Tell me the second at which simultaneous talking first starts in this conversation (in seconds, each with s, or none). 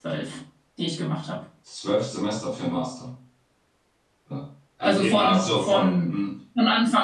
4.8 s